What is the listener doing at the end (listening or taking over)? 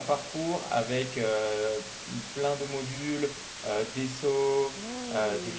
listening